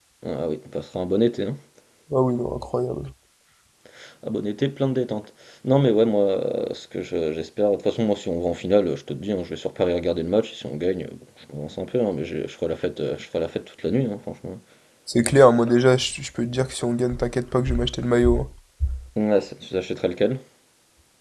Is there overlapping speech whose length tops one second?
No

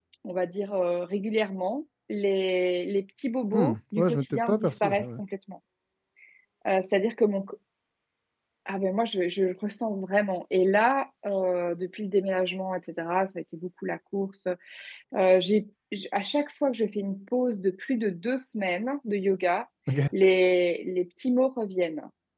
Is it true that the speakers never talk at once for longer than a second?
No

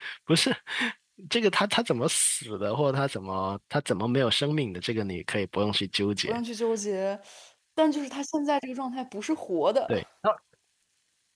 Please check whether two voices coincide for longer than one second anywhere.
No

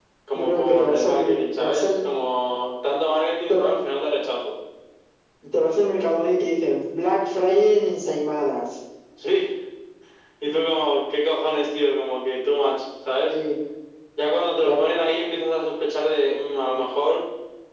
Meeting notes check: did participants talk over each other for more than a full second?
Yes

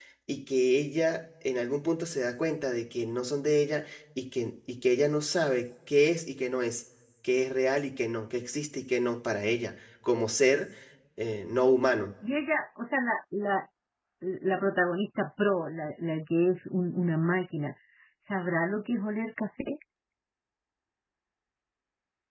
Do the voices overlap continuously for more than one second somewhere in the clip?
No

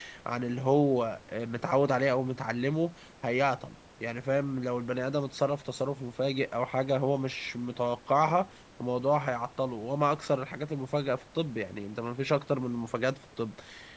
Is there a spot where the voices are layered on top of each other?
No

